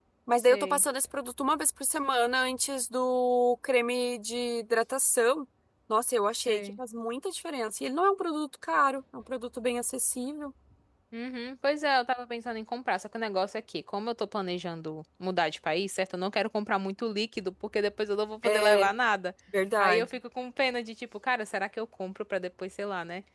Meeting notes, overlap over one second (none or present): none